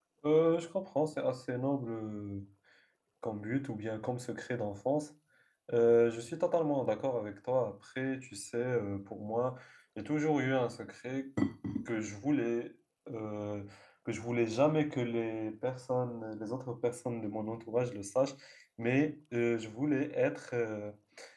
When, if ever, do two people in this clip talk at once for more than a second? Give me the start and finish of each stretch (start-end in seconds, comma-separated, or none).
none